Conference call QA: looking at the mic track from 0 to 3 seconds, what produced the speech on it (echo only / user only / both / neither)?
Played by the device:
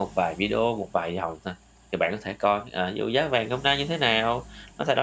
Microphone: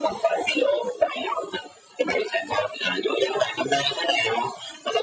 echo only